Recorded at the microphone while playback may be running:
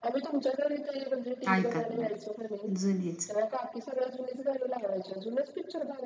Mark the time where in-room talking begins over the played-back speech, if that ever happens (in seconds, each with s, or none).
1.5 s